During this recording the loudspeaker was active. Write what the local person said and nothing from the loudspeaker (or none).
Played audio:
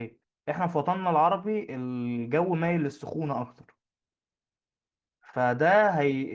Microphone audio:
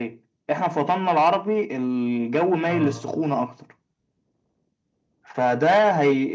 اه